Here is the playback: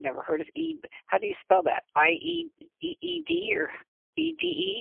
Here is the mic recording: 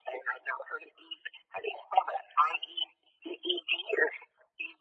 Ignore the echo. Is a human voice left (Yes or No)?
No